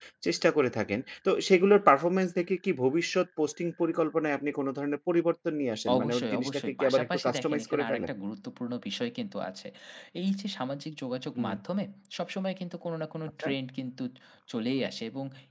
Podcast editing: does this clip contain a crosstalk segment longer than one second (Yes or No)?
Yes